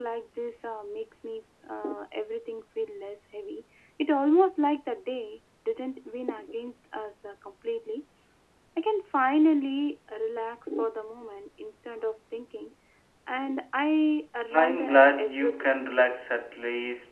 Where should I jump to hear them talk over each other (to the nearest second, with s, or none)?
15 s